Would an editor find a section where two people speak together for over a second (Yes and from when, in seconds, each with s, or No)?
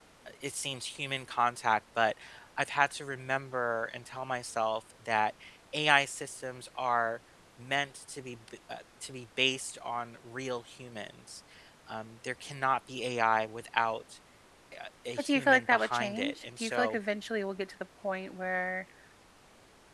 Yes, from 15.2 s